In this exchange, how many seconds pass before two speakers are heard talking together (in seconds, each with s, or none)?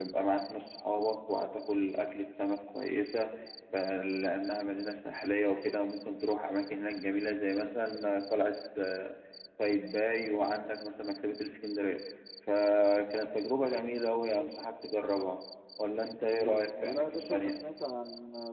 16.3 s